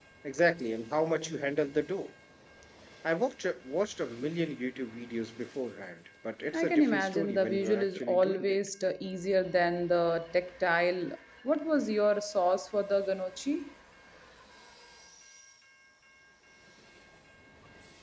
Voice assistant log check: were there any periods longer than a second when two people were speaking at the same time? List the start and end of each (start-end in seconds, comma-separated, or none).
6.5-8.6